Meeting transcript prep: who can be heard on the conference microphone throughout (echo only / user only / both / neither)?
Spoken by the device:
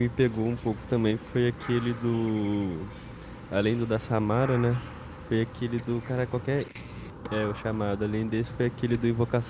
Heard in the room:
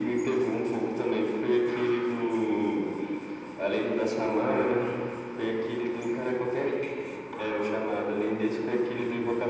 echo only